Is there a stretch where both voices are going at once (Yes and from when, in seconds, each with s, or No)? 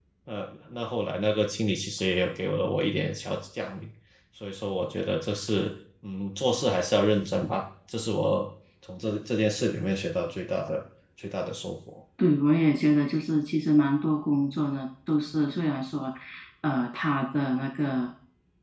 No